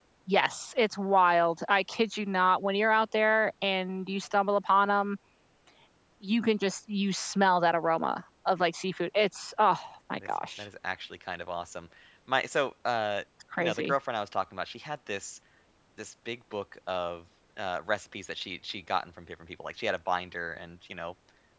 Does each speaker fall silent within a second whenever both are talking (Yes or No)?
Yes